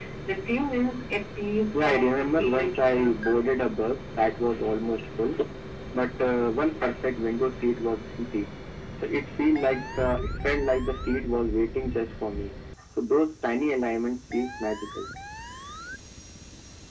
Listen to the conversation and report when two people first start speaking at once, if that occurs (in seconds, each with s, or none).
1.7 s